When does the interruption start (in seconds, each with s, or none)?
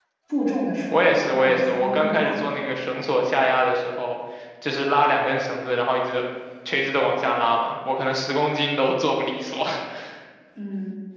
0.9 s